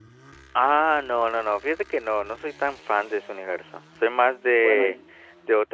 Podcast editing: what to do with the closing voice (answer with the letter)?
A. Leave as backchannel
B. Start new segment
A